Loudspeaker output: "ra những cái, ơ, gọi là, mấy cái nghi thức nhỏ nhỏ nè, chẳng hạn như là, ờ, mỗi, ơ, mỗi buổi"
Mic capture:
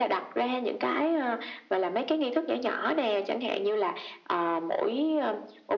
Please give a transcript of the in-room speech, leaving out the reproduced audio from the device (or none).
none